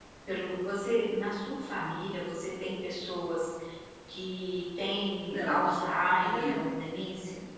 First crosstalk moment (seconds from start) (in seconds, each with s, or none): 5.2 s